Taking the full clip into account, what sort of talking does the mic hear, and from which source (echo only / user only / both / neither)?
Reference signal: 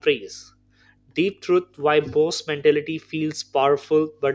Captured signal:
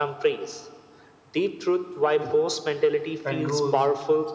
both